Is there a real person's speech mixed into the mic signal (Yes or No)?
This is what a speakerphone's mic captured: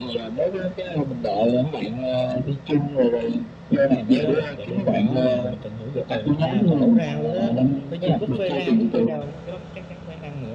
Yes